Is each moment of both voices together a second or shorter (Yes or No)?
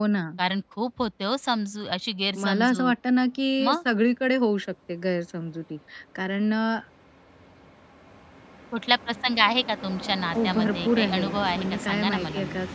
No